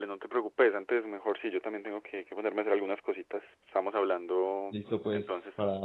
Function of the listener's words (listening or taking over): taking over